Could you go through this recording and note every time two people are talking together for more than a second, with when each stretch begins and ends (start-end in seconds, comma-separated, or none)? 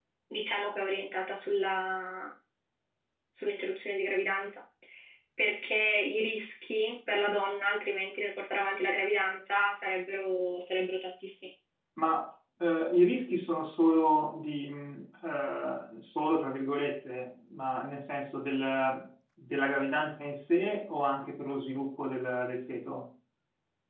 none